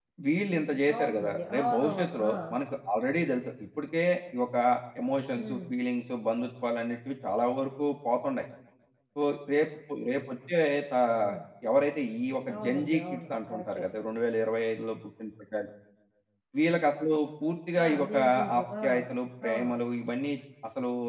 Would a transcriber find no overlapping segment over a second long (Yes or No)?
No